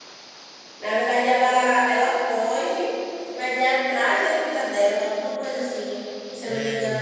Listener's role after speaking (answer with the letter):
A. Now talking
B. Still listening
B